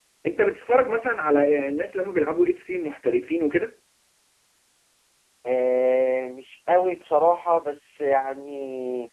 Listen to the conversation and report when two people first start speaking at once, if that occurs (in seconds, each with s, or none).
none